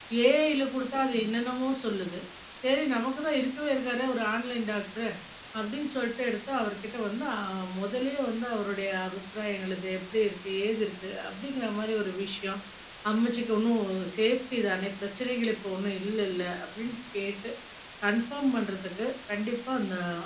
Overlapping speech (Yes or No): No